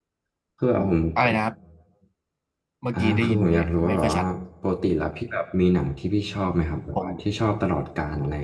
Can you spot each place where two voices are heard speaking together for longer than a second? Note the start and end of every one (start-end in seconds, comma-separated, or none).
2.9-4.2